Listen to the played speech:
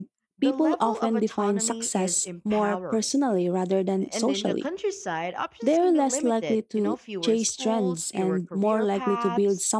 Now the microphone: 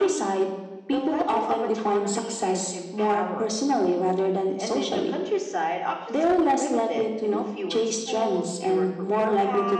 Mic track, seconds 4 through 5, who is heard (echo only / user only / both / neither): echo only